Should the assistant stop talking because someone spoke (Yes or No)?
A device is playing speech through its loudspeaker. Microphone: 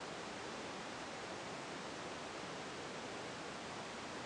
No